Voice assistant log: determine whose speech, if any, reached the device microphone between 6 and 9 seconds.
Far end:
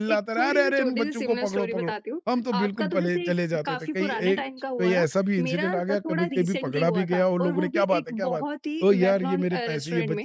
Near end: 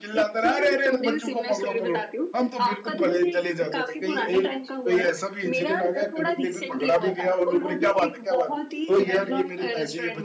echo only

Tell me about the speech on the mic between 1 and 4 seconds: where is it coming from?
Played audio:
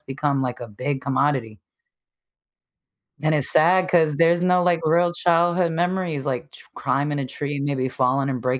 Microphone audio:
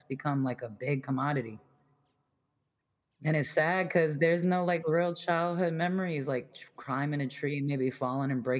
echo only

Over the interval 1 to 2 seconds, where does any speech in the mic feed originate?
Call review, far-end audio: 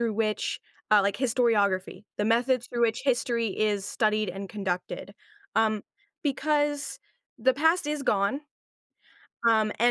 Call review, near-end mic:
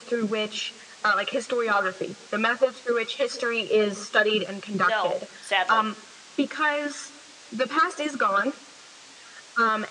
echo only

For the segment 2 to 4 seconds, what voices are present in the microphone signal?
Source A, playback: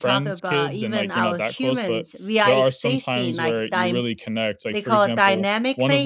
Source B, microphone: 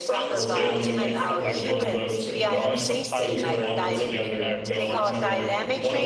both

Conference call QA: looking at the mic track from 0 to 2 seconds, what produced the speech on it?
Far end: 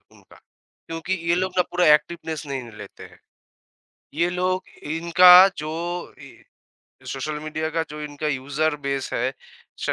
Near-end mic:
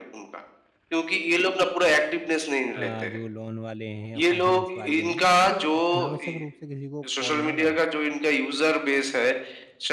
echo only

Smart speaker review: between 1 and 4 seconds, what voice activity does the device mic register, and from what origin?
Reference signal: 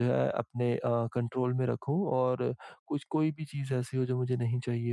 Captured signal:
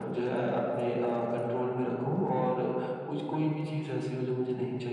echo only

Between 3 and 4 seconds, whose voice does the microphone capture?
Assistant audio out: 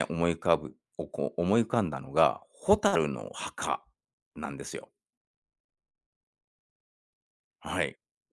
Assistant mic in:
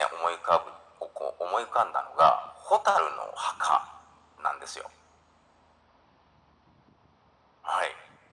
echo only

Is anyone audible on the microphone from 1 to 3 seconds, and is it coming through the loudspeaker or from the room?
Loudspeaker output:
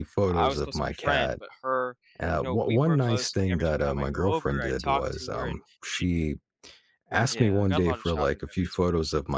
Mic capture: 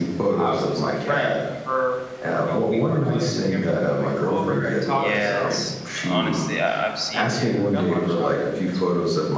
echo only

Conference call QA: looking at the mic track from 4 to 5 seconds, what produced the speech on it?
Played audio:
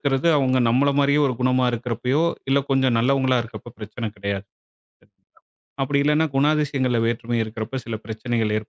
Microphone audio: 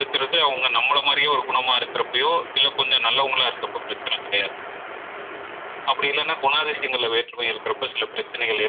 echo only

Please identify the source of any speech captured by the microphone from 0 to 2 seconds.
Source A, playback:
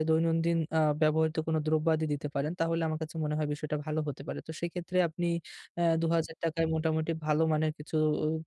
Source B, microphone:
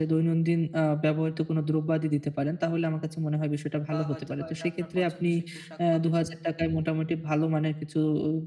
echo only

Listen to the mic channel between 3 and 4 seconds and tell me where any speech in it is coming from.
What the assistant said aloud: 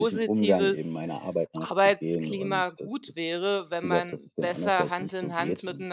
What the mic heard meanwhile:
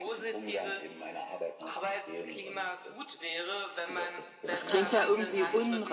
echo only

